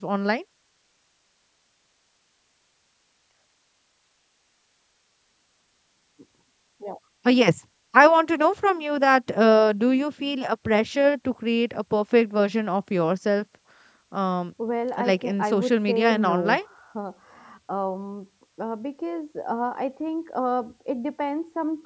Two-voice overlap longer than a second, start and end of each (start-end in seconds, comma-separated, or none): 15.0-16.6